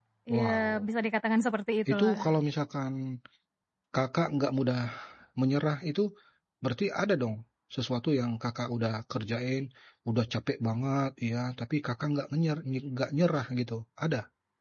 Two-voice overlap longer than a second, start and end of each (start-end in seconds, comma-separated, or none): none